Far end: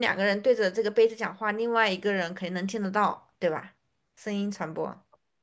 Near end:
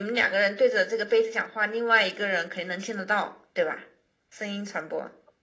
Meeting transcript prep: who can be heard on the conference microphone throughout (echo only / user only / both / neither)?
echo only